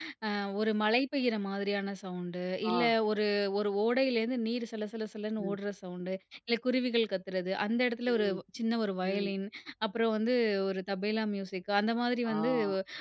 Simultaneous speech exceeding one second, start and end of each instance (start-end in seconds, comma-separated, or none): none